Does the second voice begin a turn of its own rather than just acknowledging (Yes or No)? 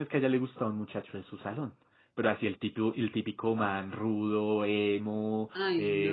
No